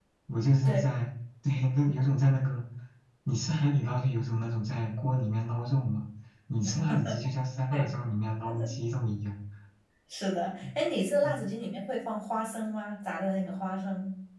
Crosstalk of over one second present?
No

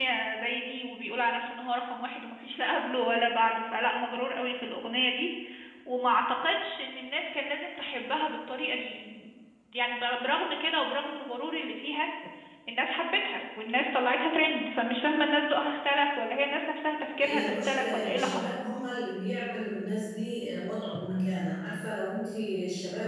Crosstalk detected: Yes, from 17.2 s

